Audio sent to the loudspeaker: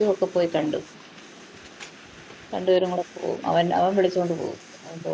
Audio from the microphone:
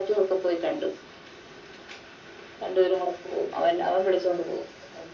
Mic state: echo only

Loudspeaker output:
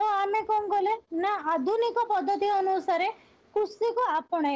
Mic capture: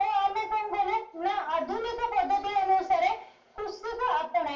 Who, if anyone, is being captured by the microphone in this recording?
echo only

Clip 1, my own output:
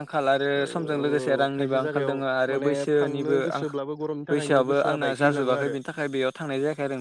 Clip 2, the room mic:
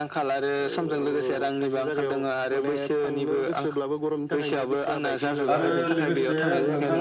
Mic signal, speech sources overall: both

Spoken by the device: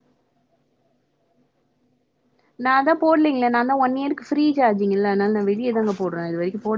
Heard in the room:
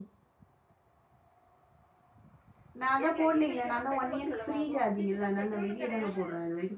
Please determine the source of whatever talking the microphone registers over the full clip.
both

